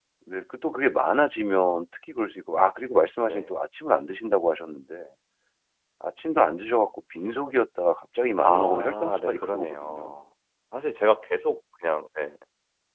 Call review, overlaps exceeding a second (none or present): present